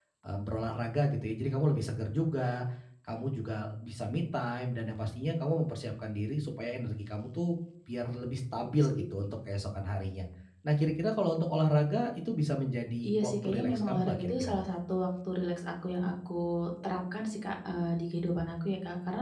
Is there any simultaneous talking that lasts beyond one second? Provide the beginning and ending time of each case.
13.1-14.6

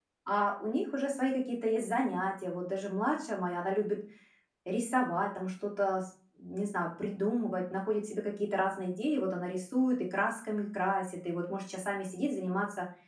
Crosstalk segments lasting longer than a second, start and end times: none

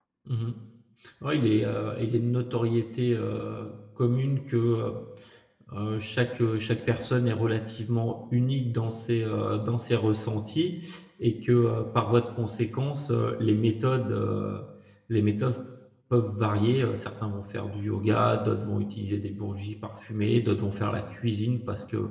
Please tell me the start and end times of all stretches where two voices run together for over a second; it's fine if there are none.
none

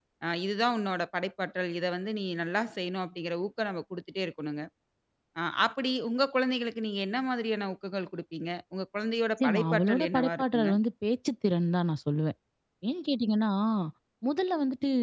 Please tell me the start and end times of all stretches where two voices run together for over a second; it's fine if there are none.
9.4-10.7

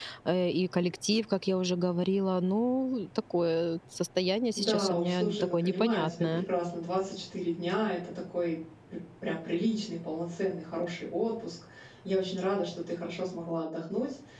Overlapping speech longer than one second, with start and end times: 4.5-6.5

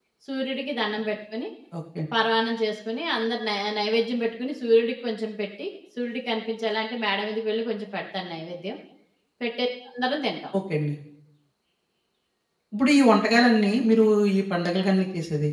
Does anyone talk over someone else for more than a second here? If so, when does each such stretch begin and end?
none

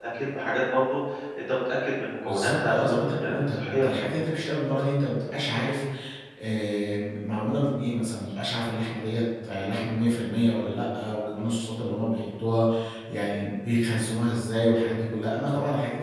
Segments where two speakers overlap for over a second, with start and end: 2.3-4.0

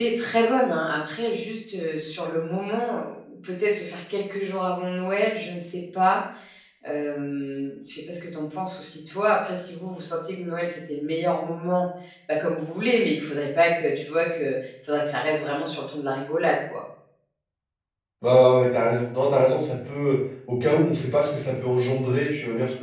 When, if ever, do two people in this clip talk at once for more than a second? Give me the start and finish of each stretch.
none

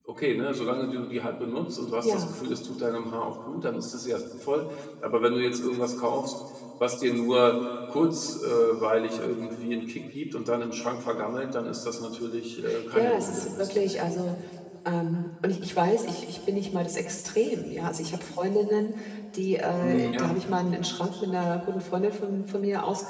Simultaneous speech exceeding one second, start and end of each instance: 12.9-14.2

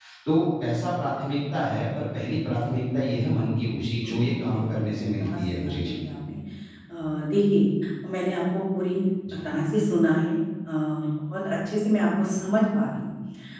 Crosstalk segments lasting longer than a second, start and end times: 4.0-6.0

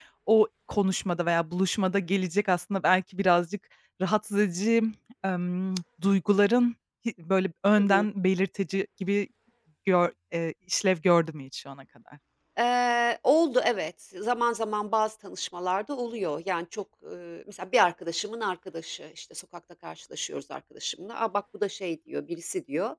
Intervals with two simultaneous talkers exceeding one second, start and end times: none

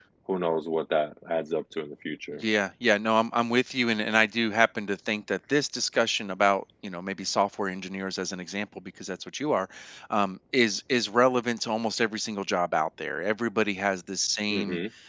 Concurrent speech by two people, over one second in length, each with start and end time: none

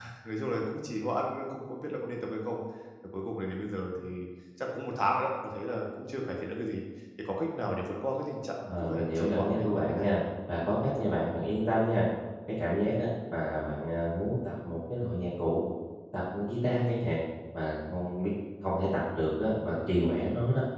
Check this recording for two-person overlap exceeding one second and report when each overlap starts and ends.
8.7-10.2

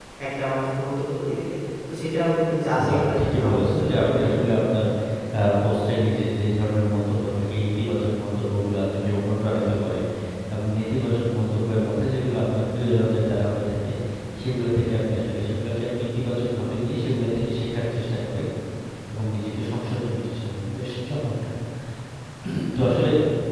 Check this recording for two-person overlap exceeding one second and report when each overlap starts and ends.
2.9-4.6

